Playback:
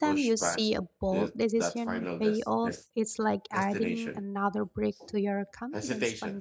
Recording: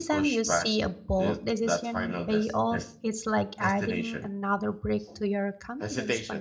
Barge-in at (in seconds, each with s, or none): none